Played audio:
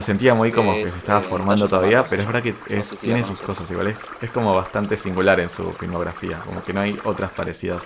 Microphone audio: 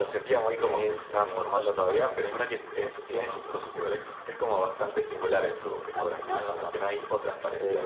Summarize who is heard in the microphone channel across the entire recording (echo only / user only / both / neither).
both